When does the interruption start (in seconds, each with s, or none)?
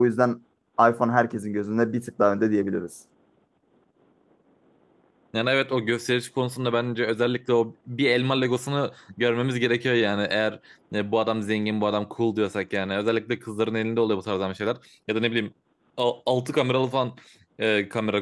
none